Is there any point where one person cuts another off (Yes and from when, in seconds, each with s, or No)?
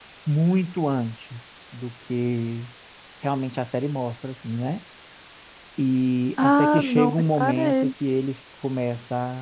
Yes, from 6.4 s